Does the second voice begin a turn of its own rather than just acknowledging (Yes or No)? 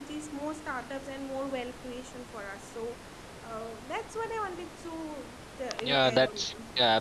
Yes